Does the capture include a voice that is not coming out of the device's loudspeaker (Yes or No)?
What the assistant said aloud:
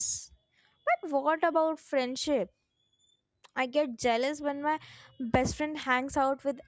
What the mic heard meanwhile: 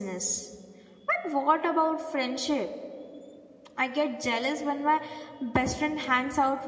No